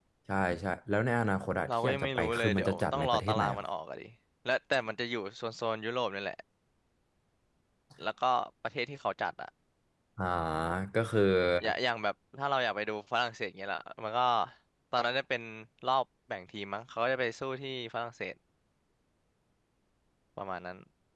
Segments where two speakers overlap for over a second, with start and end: 1.7-3.6

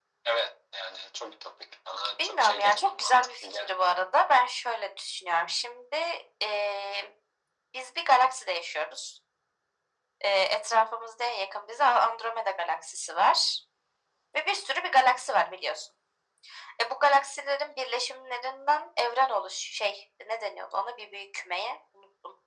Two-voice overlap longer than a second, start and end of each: 2.2-3.9

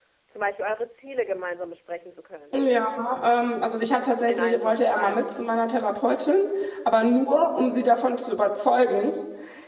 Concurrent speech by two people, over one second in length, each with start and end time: 4.3-5.6

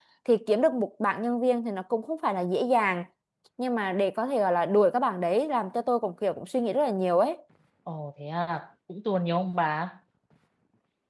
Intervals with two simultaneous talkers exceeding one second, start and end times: none

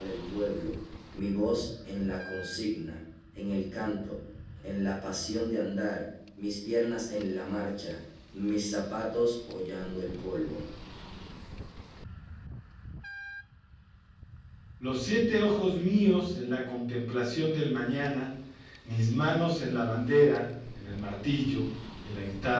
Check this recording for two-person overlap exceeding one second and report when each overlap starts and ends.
none

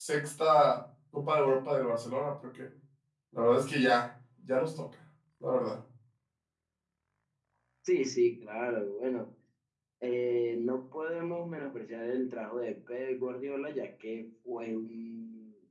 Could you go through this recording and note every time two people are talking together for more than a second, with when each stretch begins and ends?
none

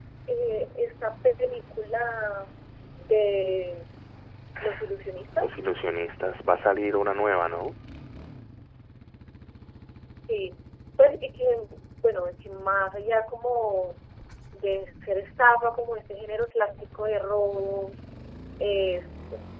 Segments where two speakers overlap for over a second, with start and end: none

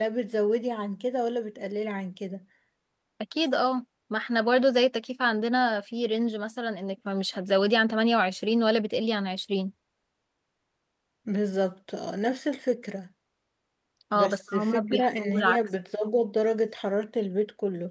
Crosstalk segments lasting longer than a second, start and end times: 14.1-15.6

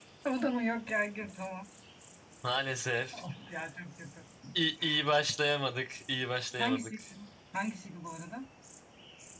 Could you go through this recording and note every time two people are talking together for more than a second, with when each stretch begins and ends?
none

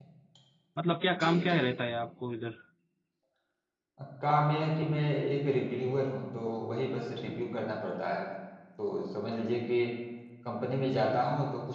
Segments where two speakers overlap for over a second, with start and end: none

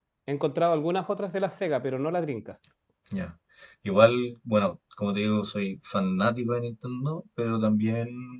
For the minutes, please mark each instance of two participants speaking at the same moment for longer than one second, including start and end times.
none

